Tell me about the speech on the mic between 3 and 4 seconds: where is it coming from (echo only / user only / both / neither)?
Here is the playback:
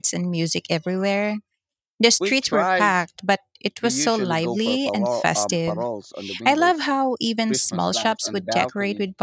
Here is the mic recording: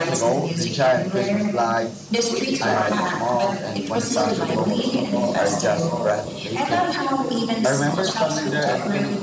both